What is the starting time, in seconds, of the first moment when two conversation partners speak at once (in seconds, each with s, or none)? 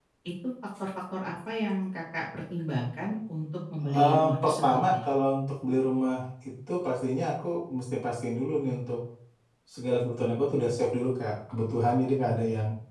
3.8 s